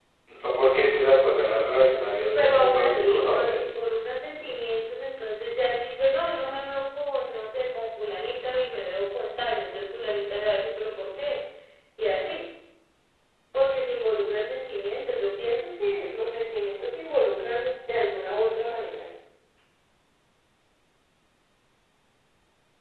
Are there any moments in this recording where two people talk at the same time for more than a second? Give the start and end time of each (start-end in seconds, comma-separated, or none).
2.4-3.7